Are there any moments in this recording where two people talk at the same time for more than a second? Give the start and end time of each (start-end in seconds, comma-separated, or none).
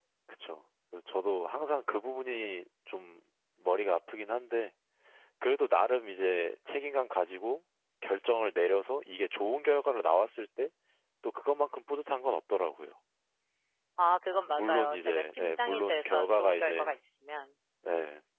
14.5-17.0